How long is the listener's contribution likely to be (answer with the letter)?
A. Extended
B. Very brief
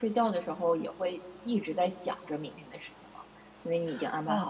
A